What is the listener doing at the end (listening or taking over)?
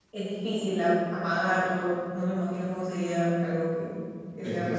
taking over